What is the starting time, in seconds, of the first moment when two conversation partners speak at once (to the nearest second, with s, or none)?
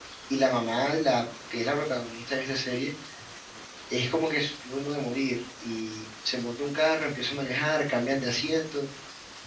none